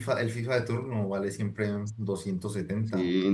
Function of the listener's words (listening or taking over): taking over